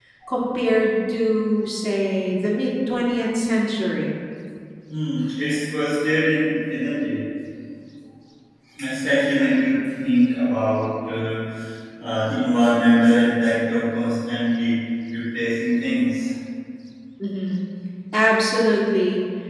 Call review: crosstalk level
none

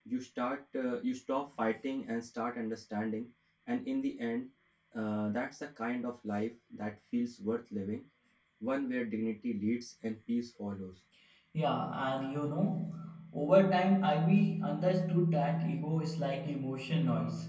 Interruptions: none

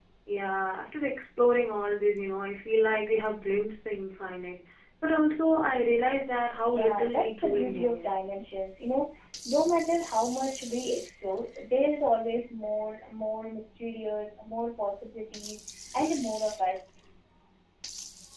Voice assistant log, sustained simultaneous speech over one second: present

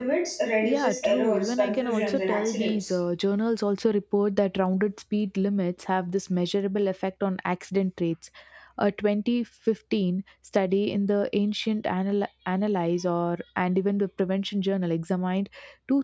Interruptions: present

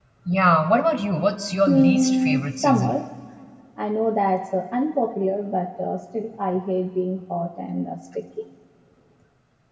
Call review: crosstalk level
present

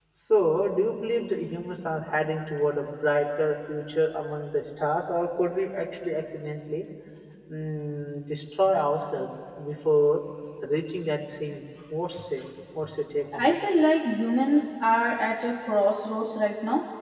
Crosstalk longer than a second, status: none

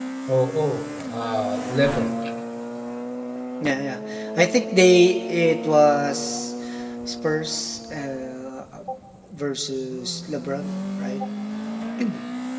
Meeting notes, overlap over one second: none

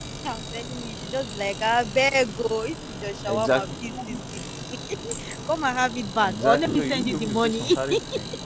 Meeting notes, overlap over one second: present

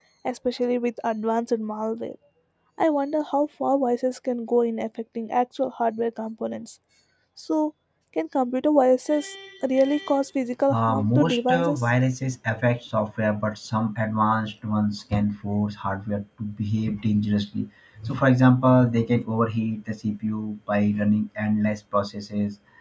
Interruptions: present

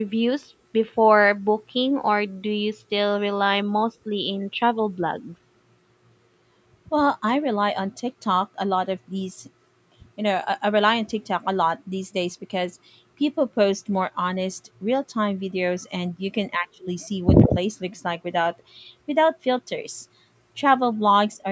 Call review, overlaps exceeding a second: none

